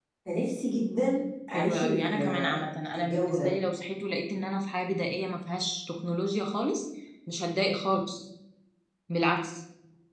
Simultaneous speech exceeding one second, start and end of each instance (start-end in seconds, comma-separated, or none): 1.5-3.5